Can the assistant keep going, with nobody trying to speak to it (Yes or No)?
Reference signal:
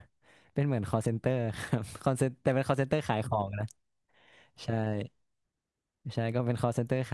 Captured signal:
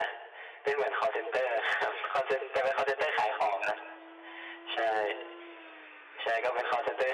Yes